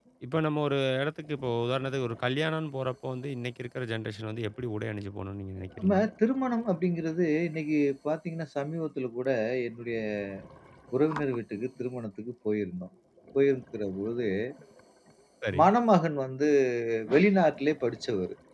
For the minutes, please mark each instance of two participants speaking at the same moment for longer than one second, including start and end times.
none

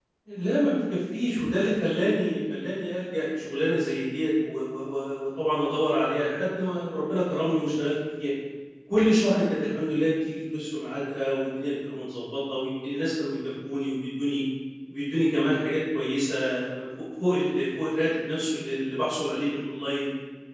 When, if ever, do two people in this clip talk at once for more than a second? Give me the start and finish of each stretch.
none

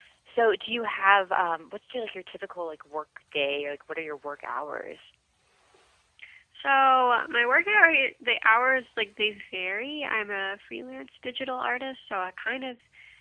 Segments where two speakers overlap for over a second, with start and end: none

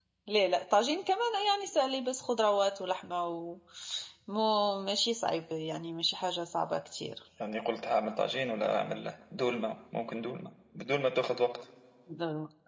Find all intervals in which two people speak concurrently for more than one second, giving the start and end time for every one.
none

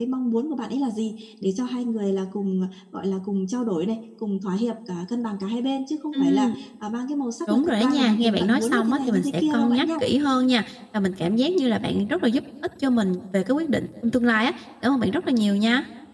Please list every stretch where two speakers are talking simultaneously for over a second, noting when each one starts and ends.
7.5-9.9

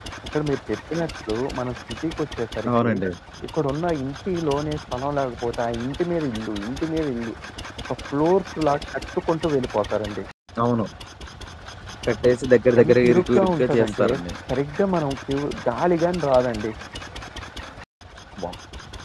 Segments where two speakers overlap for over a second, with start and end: 12.8-14.1

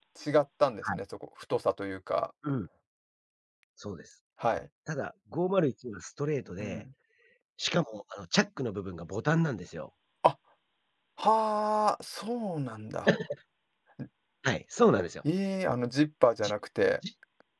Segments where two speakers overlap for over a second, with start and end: none

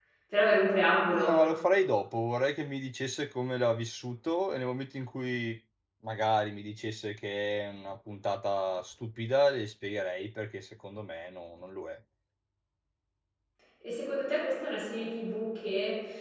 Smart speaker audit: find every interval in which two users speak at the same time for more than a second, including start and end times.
none

